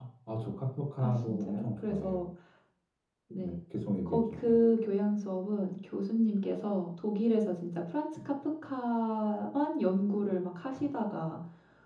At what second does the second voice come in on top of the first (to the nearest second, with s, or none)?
1 s